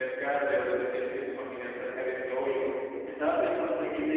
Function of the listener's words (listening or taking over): listening